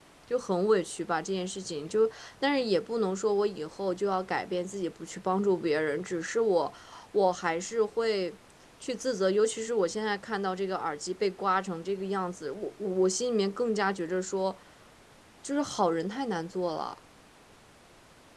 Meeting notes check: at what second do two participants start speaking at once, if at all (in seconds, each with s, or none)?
none